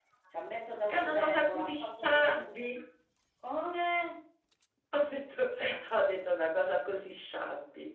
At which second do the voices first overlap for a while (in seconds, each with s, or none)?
0.9 s